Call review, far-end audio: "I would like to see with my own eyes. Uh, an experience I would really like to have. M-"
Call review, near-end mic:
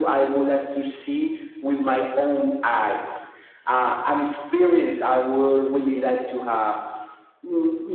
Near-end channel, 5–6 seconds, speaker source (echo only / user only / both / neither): echo only